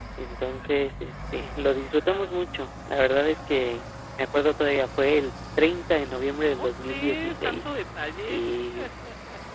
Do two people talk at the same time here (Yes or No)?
Yes